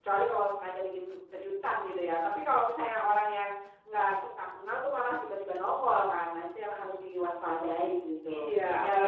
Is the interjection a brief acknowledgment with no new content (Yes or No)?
No